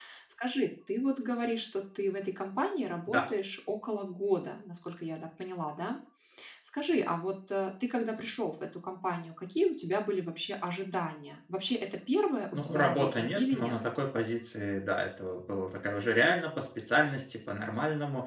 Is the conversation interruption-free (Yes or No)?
No